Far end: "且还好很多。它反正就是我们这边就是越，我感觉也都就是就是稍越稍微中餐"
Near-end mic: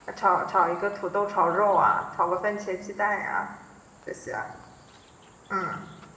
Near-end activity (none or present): present